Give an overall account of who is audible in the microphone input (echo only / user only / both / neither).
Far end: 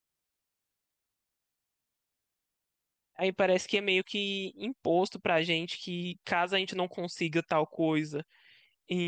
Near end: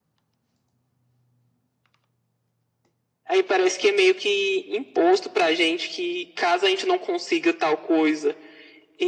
echo only